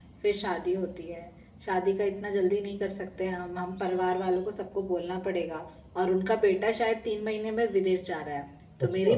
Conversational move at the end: listening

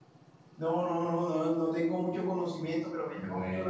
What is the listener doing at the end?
listening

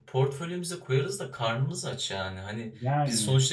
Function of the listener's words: listening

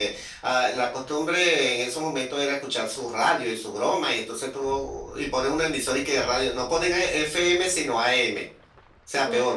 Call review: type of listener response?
listening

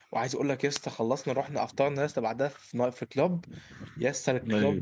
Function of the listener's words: listening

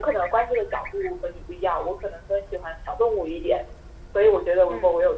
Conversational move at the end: listening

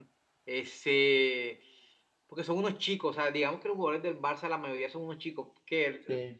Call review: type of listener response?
listening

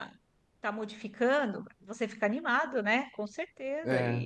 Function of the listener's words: taking over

